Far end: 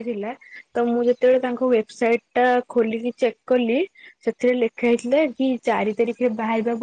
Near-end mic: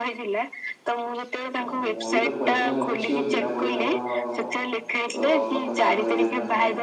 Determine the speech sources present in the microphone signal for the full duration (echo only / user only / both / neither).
both